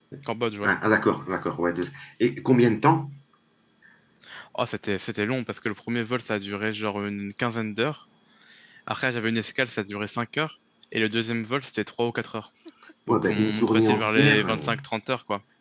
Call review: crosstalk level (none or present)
present